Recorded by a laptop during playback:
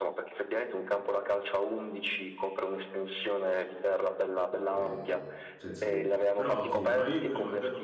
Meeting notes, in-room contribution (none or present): present